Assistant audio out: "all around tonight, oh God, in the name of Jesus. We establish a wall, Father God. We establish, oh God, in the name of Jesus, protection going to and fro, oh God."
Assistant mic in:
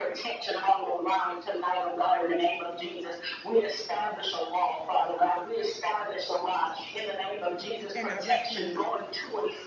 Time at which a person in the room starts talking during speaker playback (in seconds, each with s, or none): 7.9 s